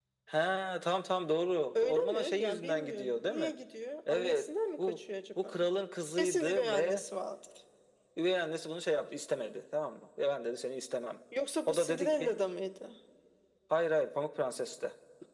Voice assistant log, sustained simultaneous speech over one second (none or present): present